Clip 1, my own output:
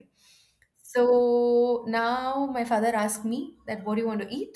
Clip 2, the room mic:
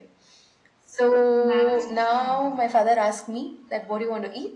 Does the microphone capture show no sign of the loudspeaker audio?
No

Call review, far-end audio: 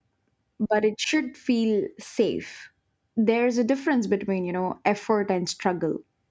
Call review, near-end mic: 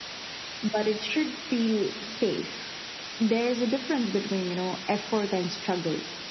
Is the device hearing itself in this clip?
Yes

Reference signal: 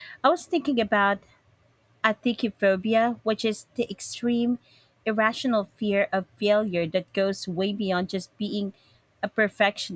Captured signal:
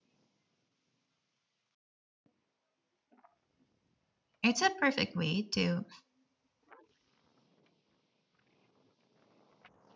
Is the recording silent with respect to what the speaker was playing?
Yes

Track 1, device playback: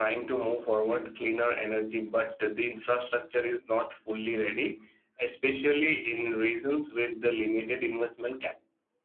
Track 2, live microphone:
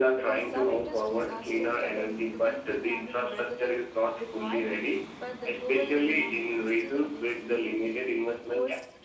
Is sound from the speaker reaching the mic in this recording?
Yes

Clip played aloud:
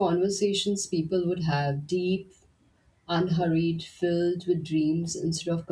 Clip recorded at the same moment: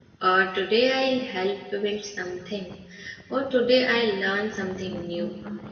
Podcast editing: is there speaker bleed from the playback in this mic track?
No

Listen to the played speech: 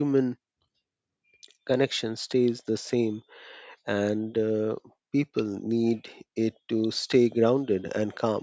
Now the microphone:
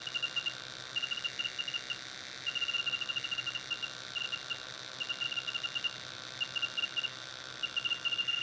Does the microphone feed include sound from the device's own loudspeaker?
No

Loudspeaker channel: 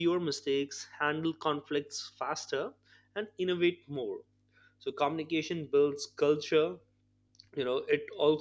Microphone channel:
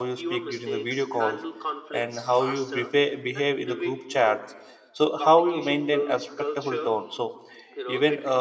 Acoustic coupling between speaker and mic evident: Yes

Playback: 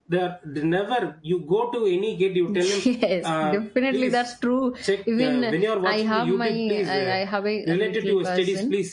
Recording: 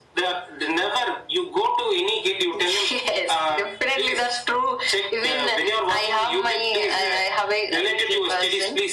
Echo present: Yes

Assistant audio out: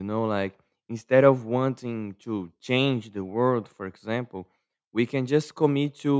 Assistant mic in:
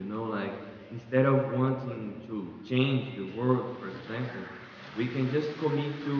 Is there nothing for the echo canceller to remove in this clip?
No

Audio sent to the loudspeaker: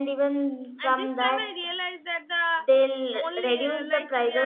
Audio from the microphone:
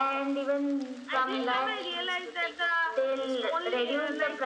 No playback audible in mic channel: No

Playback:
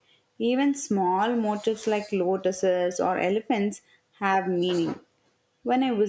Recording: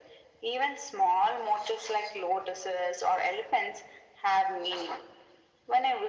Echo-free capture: No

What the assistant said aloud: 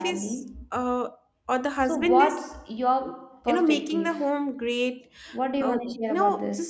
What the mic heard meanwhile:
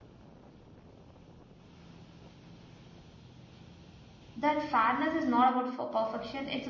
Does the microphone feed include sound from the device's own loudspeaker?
No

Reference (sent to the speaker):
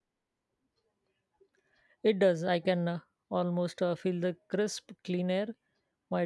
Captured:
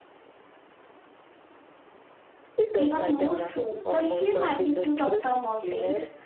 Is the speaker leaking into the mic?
Yes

